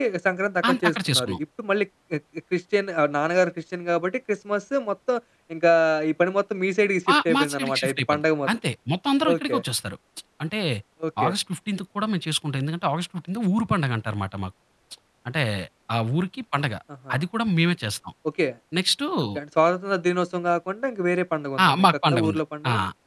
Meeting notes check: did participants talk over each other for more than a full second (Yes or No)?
Yes